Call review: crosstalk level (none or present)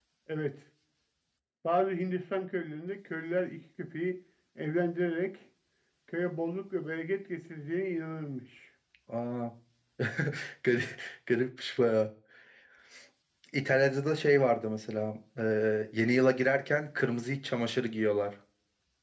none